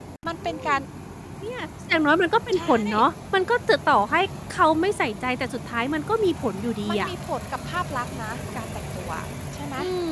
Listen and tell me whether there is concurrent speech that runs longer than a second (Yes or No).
No